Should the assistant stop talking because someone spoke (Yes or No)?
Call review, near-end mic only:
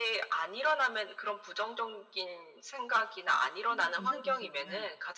Yes